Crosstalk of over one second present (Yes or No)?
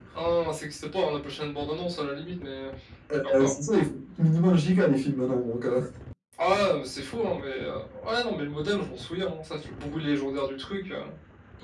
No